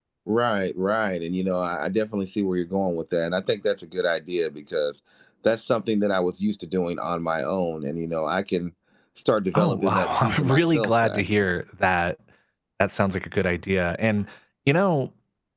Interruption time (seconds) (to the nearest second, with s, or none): 10 s